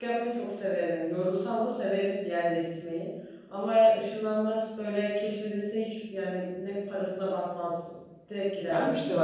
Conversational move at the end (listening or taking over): taking over